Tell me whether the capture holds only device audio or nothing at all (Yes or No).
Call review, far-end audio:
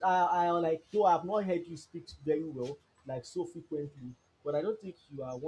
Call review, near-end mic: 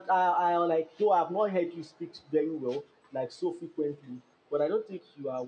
Yes